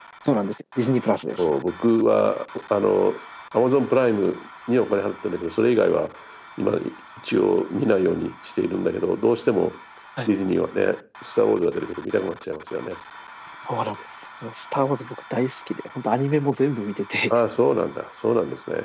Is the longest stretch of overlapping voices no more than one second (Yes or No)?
Yes